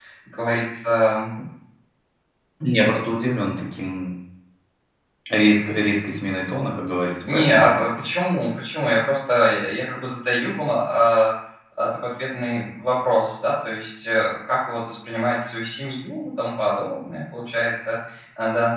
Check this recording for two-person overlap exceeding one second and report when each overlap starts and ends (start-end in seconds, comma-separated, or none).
none